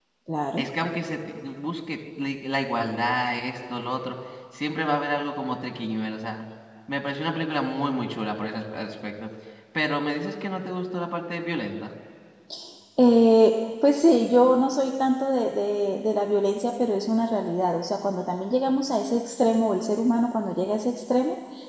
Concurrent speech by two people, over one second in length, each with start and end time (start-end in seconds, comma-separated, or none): none